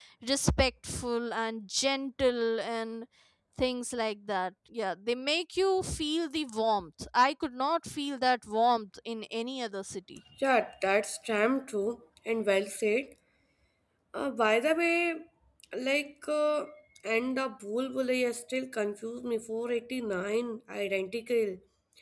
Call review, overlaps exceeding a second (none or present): none